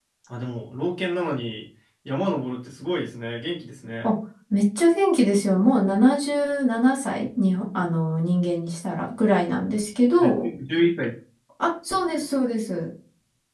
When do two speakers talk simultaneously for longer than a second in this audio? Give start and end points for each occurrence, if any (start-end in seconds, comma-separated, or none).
none